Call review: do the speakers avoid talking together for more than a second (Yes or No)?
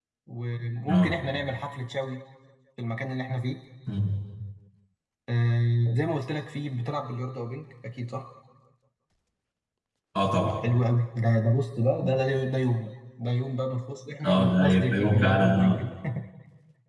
No